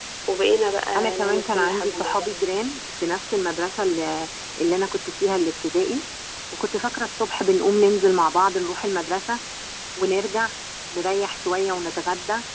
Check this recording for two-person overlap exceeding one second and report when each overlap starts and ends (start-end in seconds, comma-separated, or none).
1.0-2.5